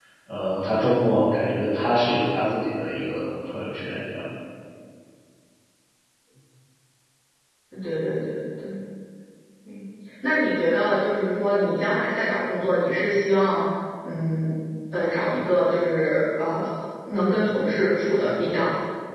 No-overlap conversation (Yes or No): Yes